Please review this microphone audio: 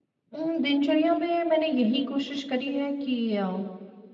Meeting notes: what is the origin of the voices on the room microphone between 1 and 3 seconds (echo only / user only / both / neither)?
user only